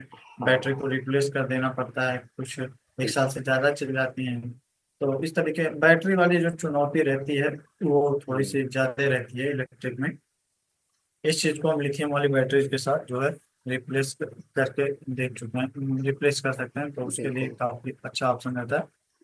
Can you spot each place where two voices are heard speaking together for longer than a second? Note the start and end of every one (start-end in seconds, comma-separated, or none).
none